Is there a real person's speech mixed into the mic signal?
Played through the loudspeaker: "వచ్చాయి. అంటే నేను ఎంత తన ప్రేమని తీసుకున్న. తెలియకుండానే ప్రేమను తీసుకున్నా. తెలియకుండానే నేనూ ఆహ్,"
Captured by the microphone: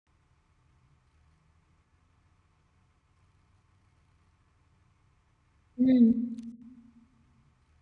Yes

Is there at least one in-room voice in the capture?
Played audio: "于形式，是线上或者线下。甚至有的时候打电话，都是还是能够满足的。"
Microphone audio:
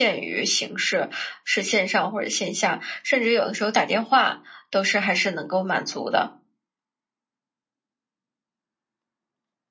No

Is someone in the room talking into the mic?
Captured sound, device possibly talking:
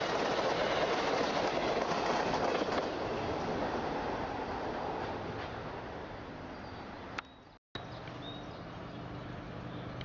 No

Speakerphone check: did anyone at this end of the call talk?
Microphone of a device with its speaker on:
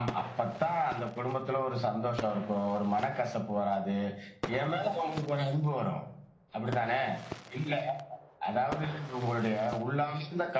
No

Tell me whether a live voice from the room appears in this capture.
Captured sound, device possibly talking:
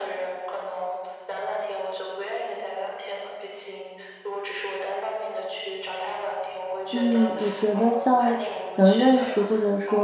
Yes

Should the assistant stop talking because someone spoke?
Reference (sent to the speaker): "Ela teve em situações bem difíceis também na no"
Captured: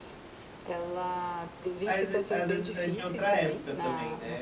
Yes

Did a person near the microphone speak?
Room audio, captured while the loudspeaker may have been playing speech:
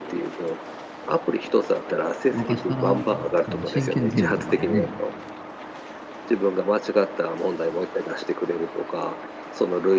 Yes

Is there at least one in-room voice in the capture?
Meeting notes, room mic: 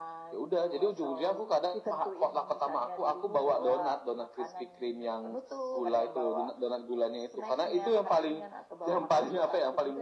No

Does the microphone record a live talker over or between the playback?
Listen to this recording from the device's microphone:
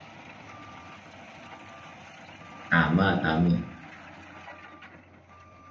Yes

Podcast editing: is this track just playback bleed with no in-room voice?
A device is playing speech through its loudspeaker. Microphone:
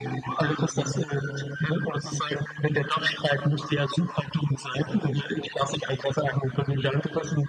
Yes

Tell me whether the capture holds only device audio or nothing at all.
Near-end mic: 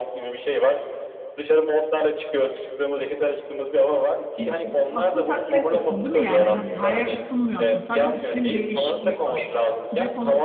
No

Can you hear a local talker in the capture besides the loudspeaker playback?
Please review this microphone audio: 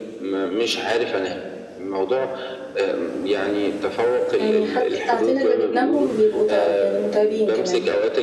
Yes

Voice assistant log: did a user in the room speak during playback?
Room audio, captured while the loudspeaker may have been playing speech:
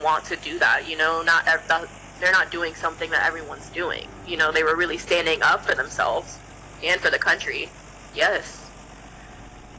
No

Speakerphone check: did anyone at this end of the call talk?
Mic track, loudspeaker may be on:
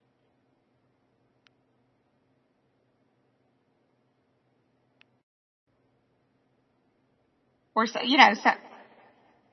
Yes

